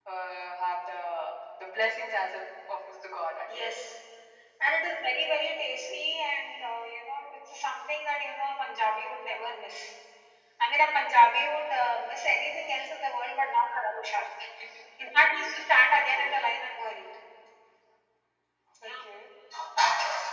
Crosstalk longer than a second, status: none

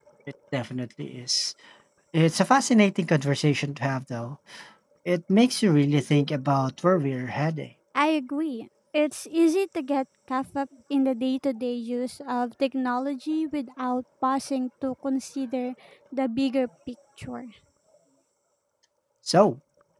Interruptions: none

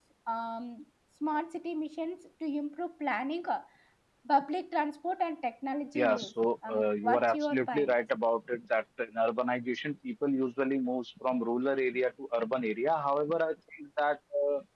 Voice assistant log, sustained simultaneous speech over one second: present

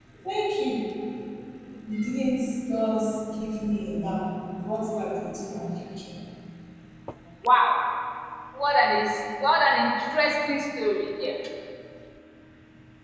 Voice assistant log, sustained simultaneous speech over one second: none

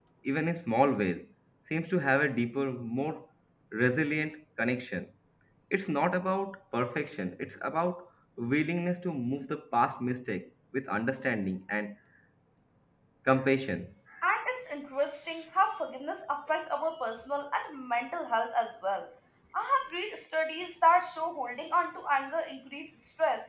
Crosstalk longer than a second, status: none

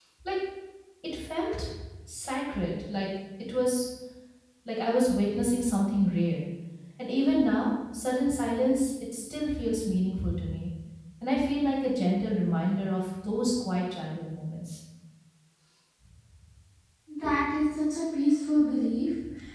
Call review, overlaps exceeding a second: none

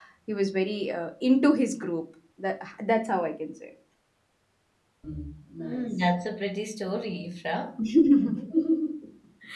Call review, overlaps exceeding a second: none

